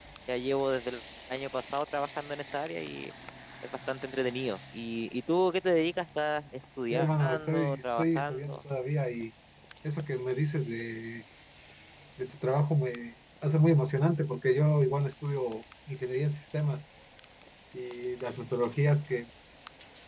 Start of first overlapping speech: 7 s

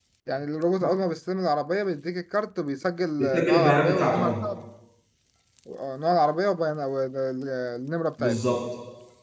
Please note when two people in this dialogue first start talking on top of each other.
3 s

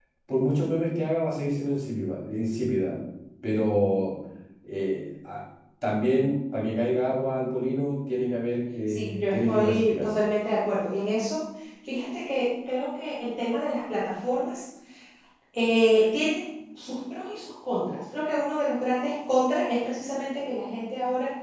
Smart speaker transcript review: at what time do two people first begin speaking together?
9 s

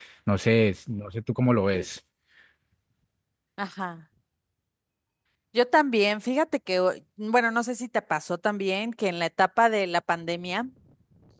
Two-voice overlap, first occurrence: none

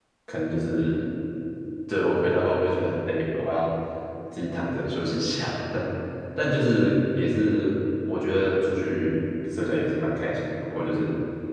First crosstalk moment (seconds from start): none

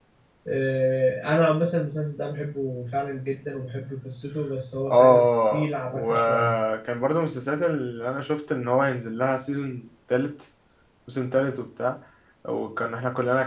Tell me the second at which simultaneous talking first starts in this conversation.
5 s

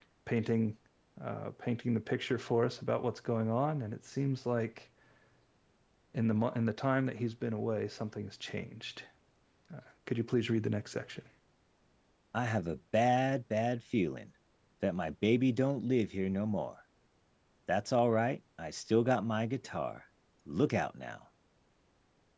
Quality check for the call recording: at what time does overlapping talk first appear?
none

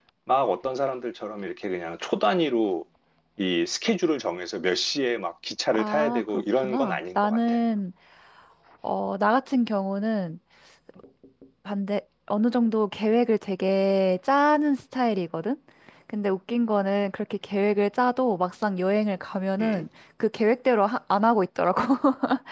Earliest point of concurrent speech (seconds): 6 s

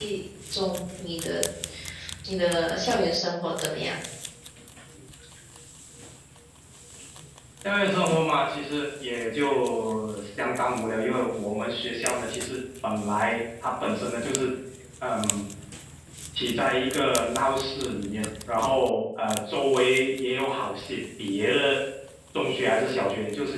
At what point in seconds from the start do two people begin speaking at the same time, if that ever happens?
none

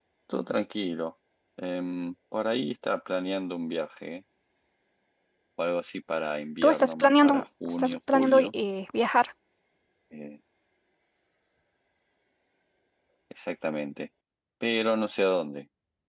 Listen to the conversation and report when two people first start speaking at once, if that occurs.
7 s

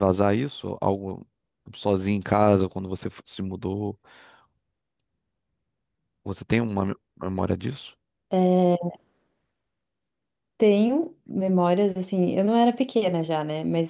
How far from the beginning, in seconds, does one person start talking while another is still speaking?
none

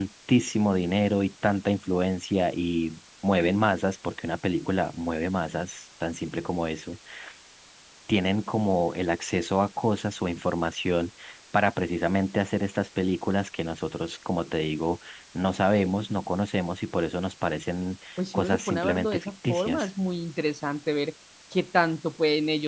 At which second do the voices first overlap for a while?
18 s

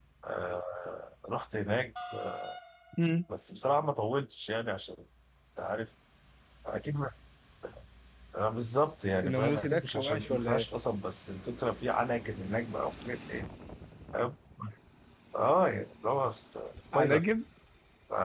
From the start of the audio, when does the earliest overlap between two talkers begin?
9 s

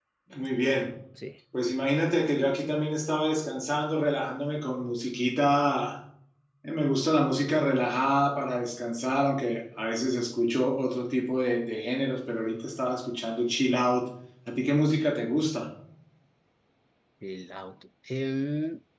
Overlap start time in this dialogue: none

